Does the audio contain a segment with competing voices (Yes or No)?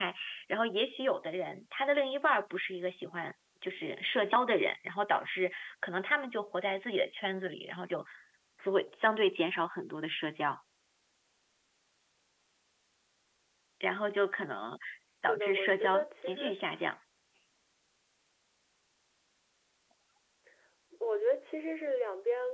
Yes